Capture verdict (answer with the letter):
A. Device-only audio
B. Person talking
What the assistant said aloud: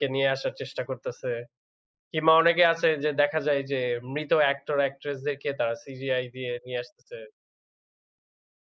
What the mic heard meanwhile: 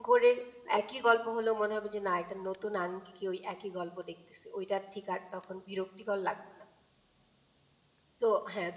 B